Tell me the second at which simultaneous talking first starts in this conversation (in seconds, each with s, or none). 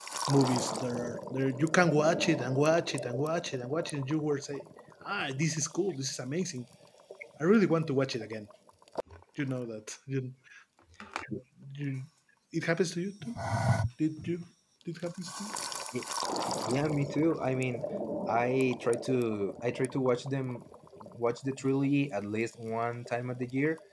none